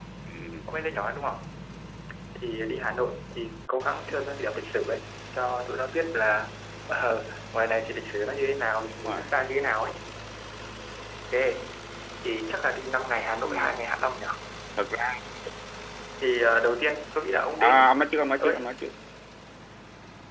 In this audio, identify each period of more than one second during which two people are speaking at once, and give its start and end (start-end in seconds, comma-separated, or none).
none